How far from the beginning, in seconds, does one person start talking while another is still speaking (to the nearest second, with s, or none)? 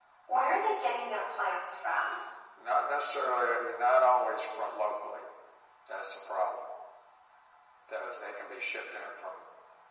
none